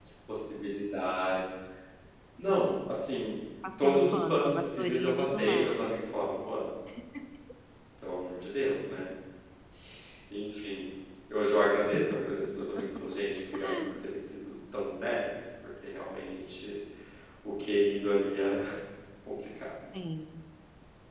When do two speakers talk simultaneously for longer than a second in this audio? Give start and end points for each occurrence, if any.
3.8-5.8

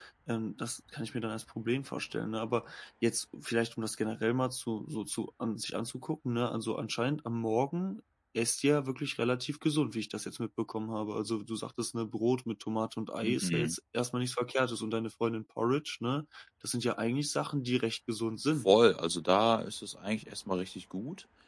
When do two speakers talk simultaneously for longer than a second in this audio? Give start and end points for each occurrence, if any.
none

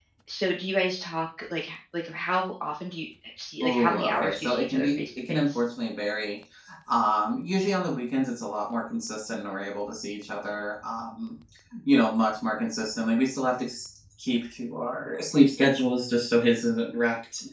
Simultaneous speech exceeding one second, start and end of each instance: 3.6-5.6

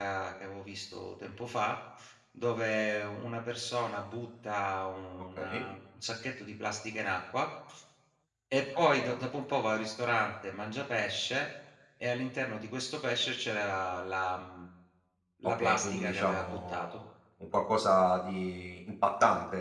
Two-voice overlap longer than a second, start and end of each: 15.4-17.0

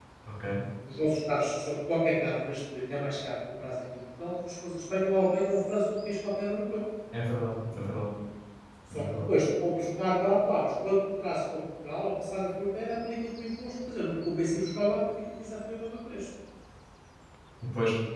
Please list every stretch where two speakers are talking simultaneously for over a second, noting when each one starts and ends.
none

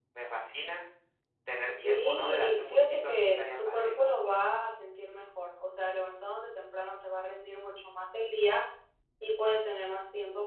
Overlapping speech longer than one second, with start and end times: 1.8-4.2

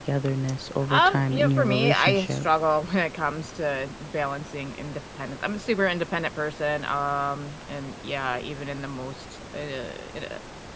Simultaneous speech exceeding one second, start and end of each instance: 0.9-2.5

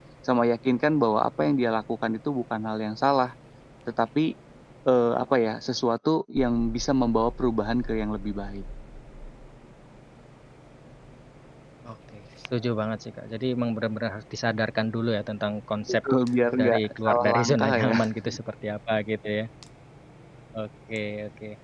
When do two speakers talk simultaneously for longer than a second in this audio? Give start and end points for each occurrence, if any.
16.6-17.9

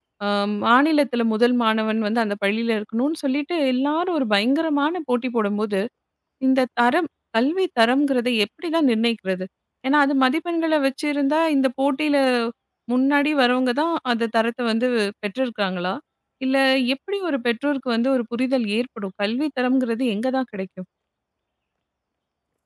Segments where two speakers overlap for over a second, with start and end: none

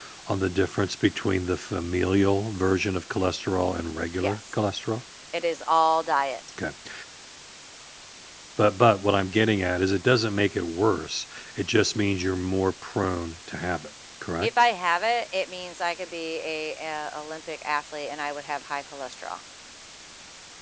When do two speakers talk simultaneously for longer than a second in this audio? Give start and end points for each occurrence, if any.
none

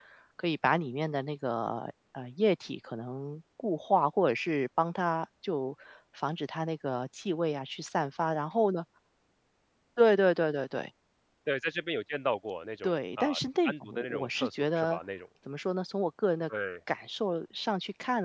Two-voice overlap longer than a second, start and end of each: 13.6-15.0

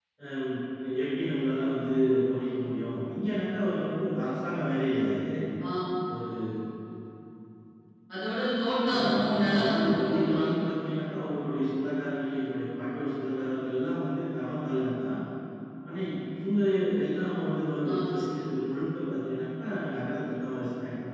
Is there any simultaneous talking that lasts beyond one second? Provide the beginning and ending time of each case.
8.9-10.5

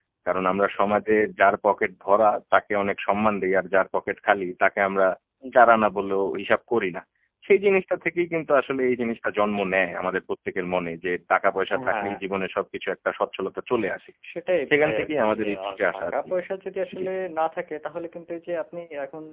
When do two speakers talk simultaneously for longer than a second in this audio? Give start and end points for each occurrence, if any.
14.7-16.1

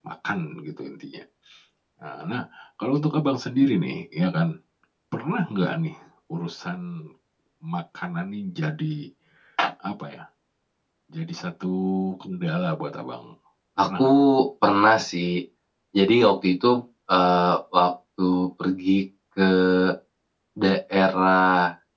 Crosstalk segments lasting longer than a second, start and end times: none

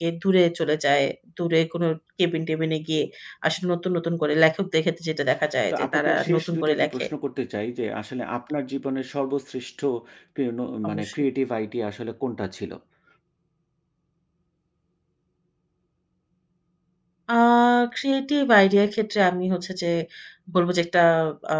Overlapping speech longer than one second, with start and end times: 5.7-7.1

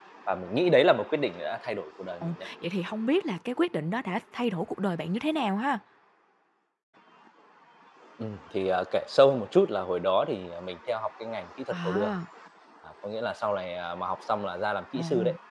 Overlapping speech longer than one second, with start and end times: none

